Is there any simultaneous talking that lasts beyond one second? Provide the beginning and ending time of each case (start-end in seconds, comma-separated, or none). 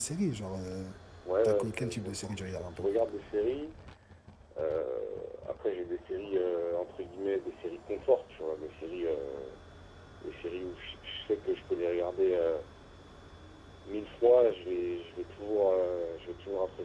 1.4-2.9